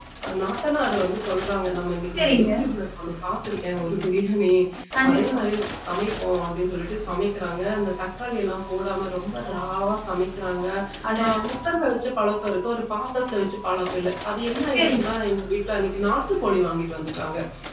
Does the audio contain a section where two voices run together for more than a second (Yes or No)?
No